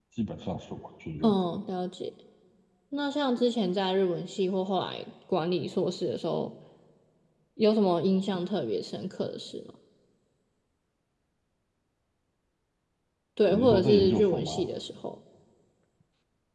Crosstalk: present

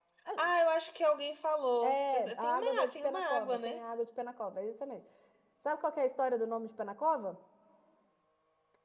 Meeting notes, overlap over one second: present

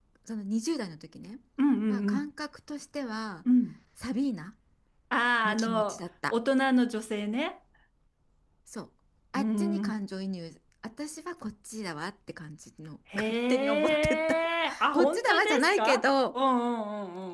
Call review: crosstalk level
present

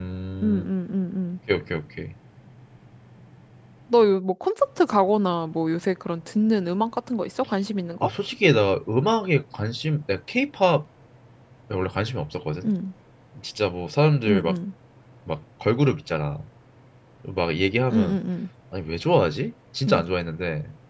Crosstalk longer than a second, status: none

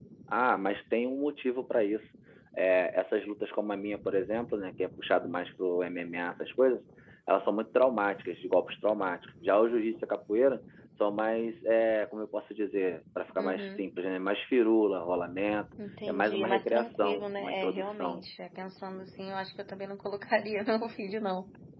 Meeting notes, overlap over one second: present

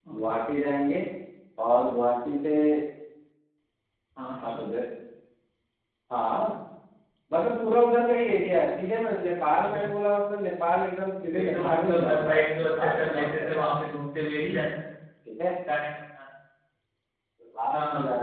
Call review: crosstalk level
present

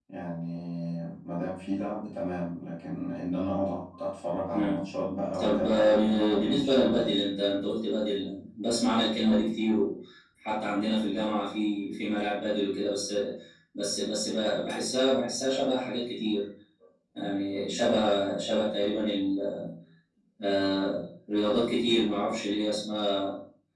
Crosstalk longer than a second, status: present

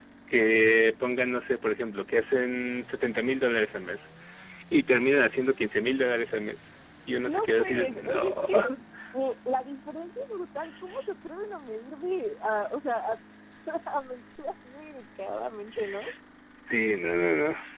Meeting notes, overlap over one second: present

